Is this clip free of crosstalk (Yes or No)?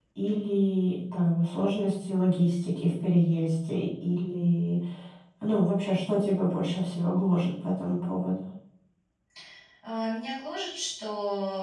Yes